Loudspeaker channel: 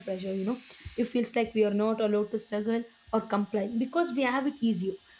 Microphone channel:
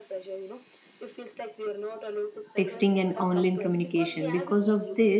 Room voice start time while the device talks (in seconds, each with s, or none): 2.6 s